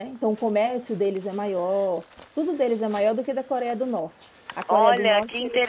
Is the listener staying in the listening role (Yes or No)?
No